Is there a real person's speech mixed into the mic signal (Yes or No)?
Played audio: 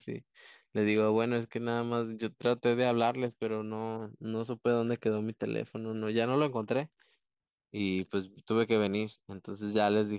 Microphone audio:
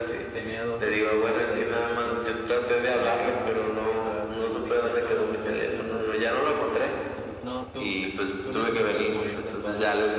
Yes